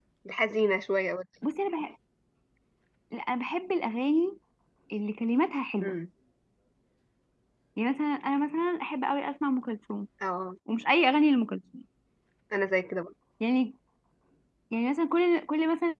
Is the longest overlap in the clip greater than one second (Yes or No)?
No